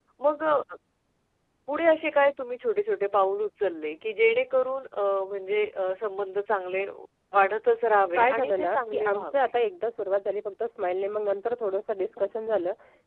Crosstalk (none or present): present